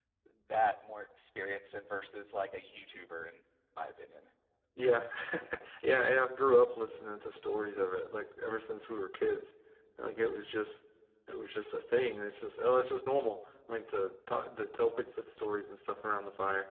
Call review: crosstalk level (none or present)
none